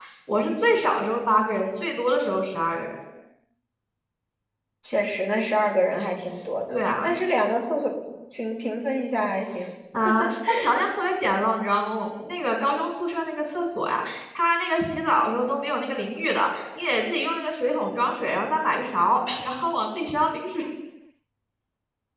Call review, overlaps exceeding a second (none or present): none